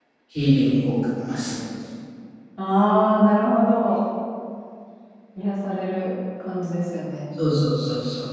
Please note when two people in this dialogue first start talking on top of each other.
none

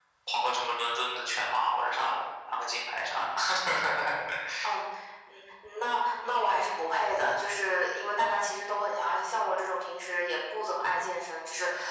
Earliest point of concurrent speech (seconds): none

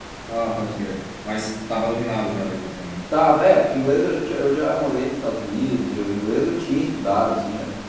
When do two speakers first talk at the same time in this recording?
none

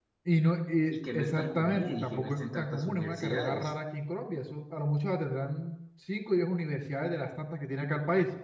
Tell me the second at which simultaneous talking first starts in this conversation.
0.9 s

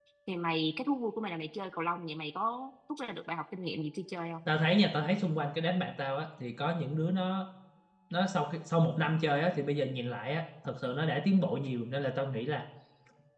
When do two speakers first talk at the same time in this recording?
none

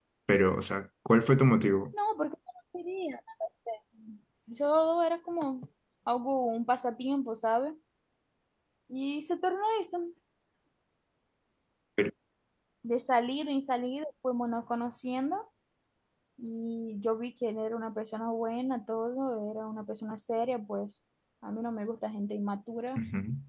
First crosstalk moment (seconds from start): none

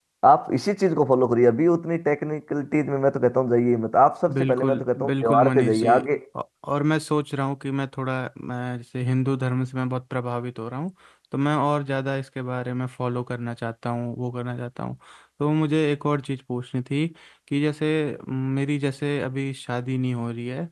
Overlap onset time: 4.3 s

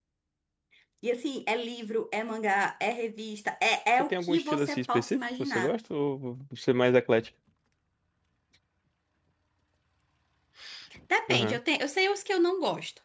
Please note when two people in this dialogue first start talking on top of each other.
4.0 s

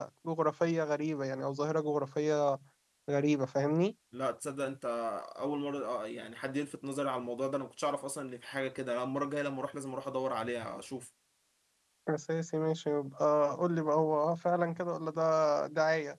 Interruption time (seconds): none

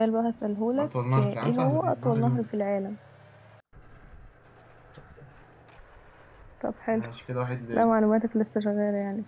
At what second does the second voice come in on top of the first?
0.8 s

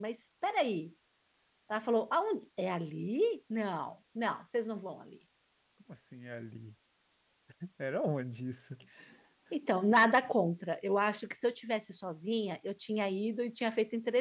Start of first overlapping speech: none

